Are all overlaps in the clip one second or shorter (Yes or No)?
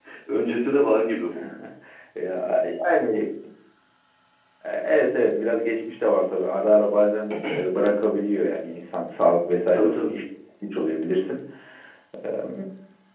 Yes